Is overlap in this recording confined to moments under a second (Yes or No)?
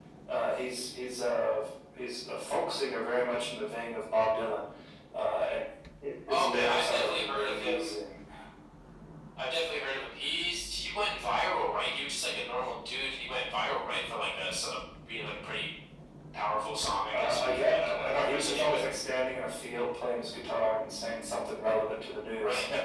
No